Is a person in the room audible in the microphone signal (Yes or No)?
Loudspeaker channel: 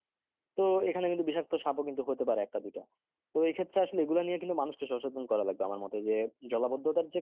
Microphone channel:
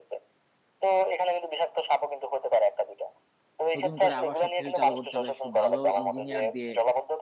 Yes